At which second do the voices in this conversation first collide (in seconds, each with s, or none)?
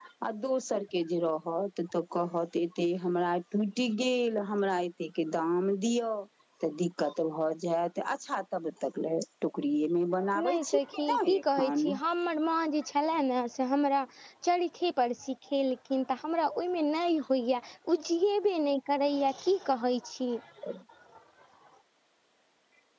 10.3 s